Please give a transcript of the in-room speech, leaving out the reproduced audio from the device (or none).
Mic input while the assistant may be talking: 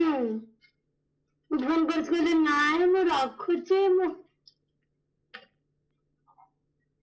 none